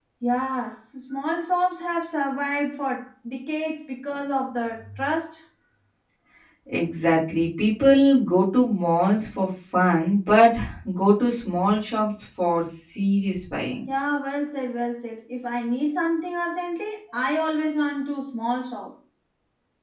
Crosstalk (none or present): none